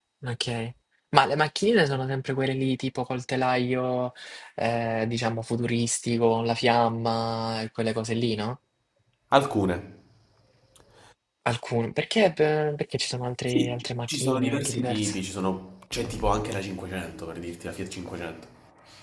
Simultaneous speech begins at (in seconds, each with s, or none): 13.5 s